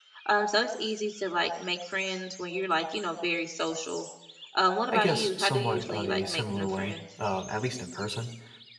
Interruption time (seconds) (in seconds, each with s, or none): 4.9 s